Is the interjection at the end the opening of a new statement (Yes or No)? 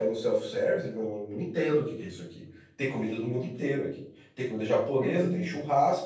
No